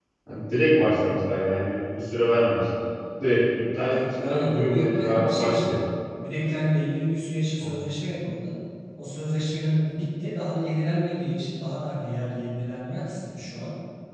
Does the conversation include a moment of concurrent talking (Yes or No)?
Yes